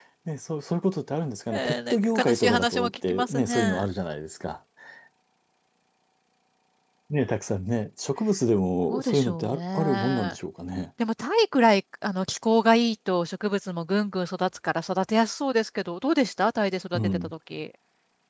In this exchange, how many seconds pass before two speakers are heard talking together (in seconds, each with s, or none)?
1.5 s